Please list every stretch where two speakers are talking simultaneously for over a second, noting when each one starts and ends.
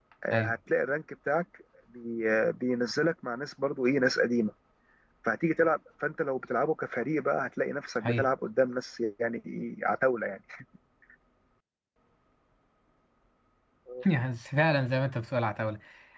none

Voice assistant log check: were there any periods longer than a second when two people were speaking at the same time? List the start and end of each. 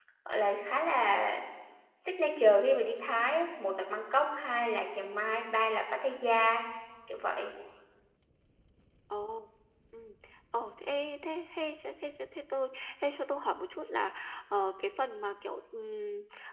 none

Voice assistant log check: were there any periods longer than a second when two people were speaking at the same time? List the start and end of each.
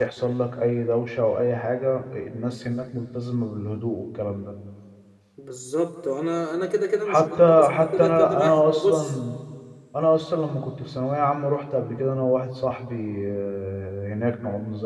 7.1-9.1

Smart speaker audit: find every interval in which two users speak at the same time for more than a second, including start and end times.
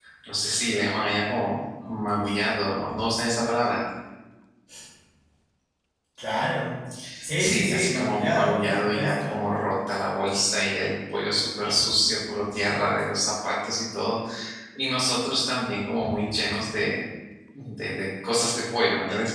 7.3-9.4

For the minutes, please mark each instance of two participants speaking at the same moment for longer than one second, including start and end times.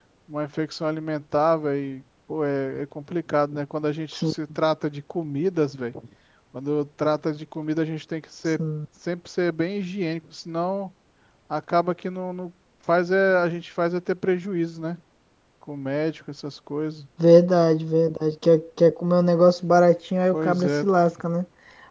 none

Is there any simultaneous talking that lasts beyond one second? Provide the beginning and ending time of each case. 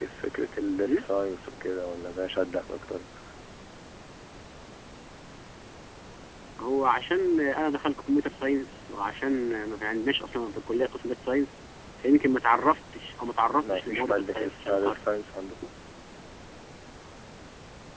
13.6-15.1

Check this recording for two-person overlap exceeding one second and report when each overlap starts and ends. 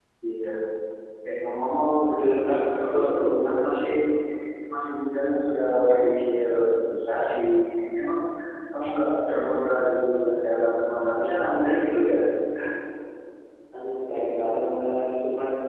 2.5-3.7

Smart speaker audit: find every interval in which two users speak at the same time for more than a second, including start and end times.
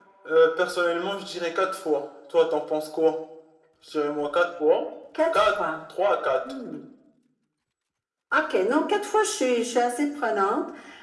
none

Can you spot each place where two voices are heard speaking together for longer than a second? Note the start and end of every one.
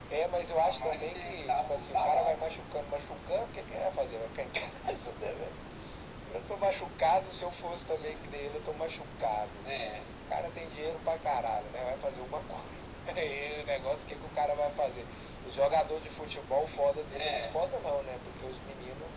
0.6-2.5

